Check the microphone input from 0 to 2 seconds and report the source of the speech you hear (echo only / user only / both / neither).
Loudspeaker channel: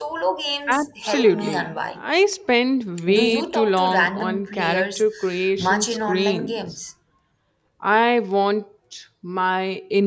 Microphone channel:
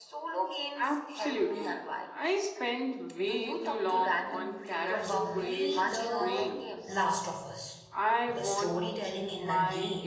echo only